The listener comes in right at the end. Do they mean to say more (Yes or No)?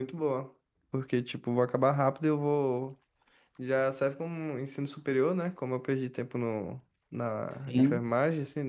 No